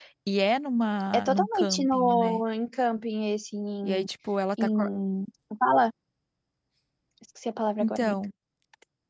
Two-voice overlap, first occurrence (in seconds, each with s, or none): 1.1 s